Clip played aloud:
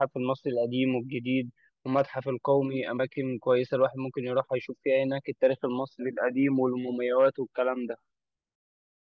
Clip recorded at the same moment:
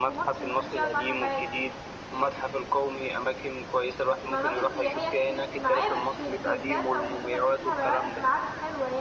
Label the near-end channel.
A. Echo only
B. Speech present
B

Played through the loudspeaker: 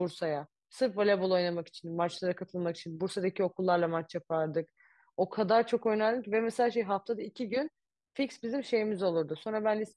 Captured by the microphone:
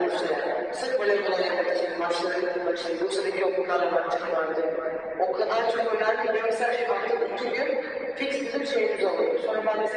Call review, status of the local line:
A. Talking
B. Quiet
B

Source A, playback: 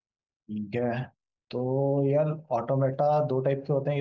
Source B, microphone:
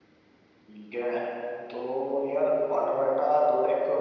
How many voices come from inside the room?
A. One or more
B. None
B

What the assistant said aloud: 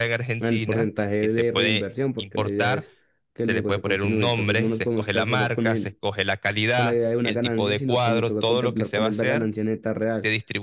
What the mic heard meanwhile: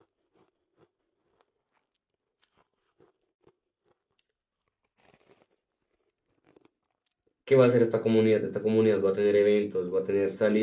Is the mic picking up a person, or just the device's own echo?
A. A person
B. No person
A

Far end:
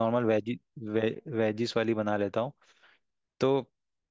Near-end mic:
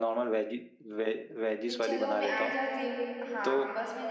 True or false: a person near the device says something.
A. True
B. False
A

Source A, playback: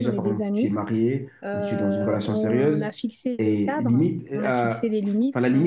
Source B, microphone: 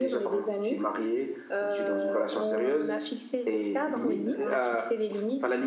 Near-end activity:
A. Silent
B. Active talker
B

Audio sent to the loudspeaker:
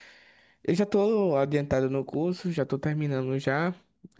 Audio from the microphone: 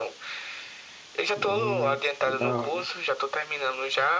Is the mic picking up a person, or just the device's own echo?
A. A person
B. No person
A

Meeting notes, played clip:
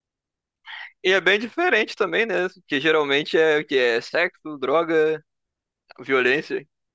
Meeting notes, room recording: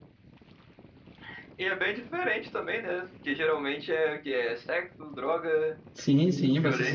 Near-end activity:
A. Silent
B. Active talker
B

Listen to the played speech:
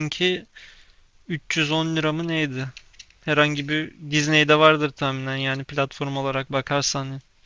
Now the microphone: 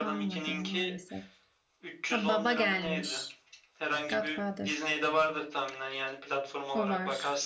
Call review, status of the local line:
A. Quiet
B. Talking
B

